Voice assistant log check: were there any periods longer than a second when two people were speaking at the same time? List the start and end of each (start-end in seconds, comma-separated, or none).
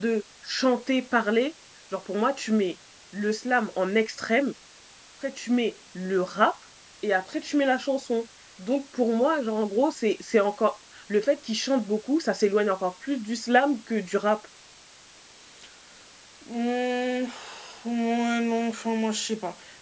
none